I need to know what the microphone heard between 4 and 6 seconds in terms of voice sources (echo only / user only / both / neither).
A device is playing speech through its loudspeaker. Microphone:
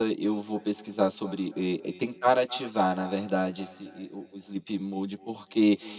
user only